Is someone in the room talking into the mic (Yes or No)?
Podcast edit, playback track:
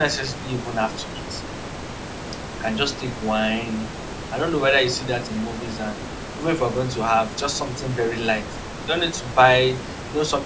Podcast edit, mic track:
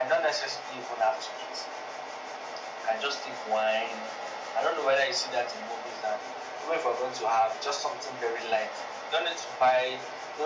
No